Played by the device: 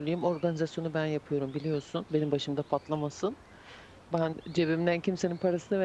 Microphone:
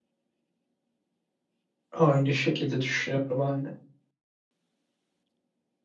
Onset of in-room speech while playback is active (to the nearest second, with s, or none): 2 s